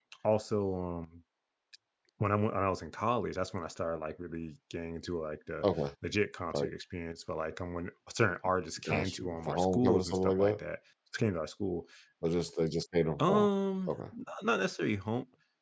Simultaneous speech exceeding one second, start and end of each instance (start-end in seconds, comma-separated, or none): 8.8-10.6